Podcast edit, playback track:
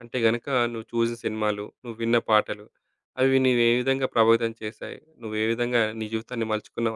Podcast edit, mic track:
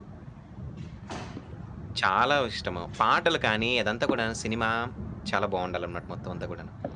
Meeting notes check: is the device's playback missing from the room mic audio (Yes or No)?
Yes